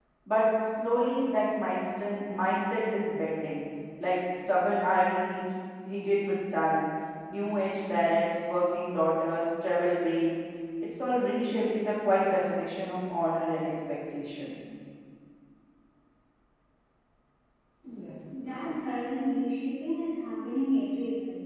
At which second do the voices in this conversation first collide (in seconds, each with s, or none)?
none